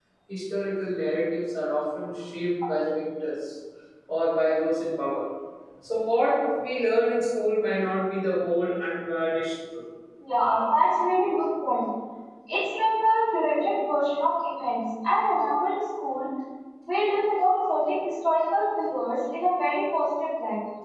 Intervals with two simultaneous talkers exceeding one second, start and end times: none

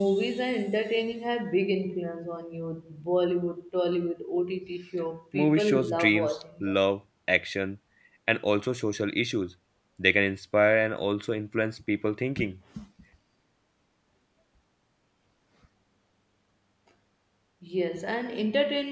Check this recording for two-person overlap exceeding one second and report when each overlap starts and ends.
5.3-6.8

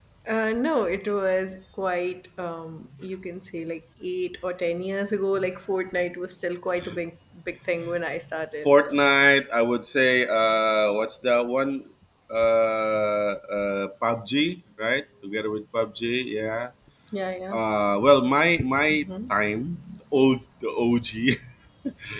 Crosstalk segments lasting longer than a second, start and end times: none

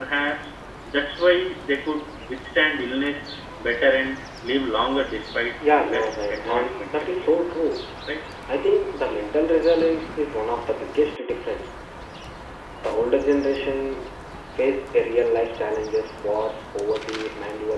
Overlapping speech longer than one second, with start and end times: 5.7-7.3

